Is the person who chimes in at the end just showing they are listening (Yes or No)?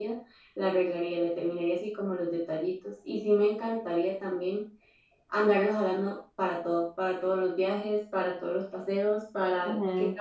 Yes